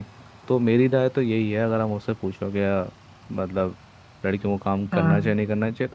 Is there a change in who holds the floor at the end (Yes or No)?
No